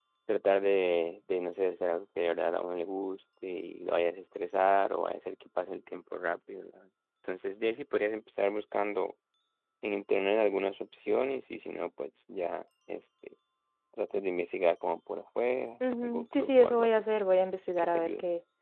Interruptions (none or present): present